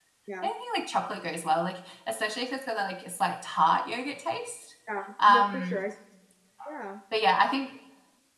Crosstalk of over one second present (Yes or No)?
No